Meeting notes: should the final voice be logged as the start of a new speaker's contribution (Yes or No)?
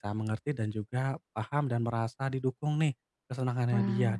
No